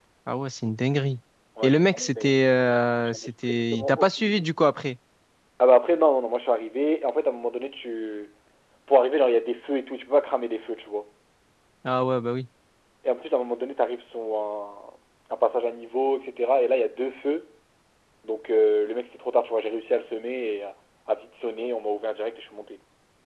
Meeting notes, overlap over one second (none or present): present